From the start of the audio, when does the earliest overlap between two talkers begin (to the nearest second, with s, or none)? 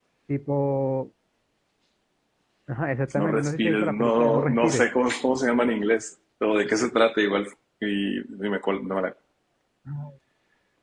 3 s